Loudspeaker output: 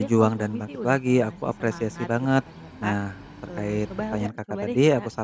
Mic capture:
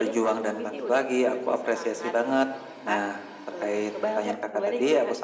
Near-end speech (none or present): none